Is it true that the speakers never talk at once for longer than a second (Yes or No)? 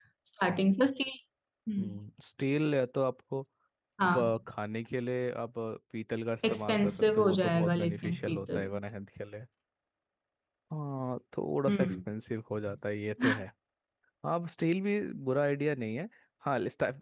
No